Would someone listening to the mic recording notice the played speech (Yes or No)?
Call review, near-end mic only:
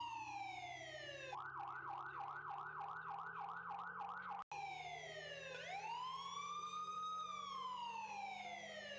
No